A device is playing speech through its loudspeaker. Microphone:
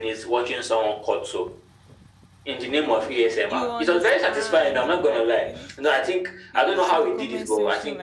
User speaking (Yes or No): Yes